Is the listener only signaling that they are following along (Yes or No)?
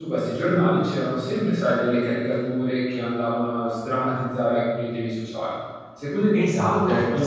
No